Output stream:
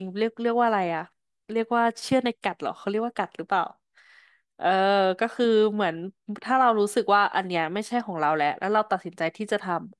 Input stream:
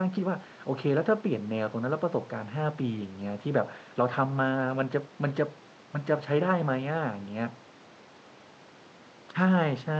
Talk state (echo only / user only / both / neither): user only